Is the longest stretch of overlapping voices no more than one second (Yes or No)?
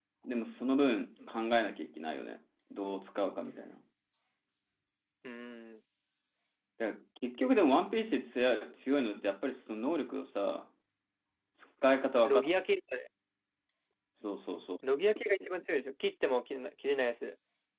Yes